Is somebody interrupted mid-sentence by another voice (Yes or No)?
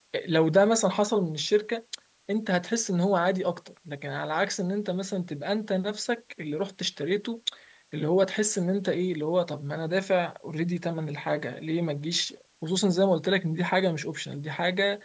No